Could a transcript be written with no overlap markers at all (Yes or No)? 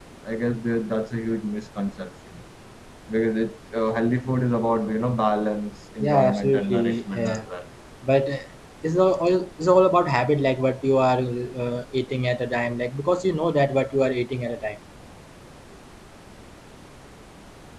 No